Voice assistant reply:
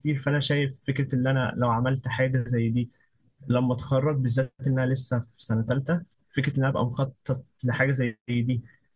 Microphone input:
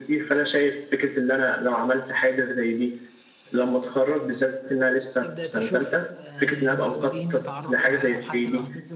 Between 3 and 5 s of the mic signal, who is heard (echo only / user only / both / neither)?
echo only